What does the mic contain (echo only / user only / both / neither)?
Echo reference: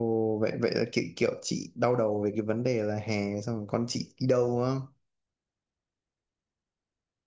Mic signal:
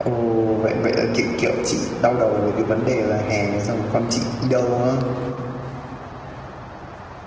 echo only